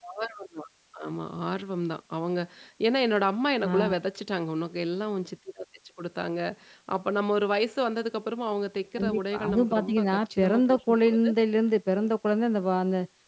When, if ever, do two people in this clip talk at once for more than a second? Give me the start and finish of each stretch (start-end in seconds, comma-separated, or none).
9.0-11.3